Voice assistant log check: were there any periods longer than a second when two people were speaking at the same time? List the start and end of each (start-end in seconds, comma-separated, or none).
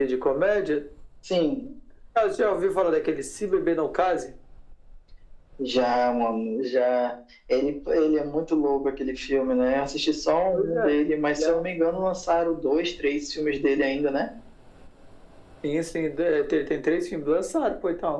10.5-12.0